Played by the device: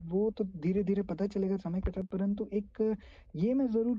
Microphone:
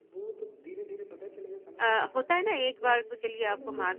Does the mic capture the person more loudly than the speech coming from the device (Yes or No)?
Yes